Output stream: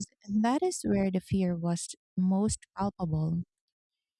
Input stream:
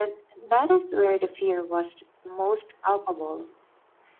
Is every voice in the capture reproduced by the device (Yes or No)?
Yes